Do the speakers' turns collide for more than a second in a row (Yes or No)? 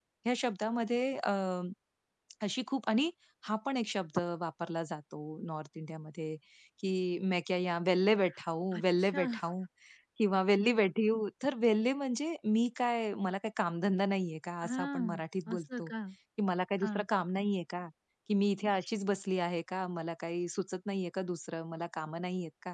Yes